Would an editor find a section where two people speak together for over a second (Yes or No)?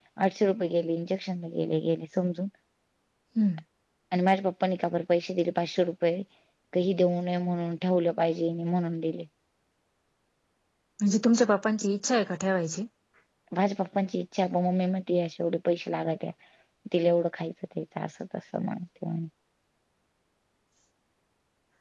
No